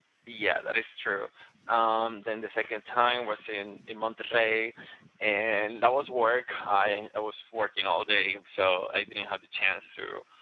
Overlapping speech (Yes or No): No